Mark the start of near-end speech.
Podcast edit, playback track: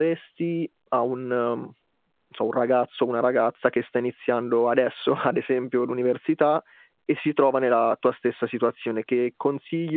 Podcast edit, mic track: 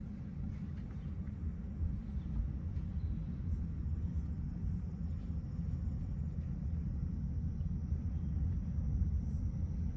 none

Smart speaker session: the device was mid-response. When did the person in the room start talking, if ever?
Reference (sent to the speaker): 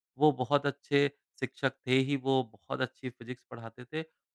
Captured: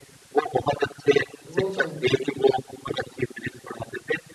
2 s

